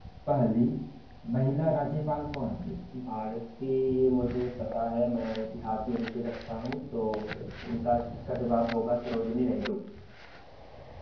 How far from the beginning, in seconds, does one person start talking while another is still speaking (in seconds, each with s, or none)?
none